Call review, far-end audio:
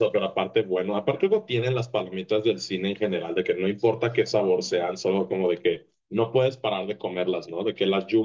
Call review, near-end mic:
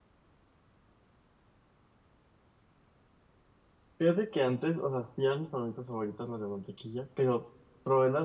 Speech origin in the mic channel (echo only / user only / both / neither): user only